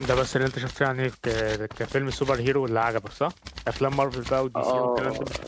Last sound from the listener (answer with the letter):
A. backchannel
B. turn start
B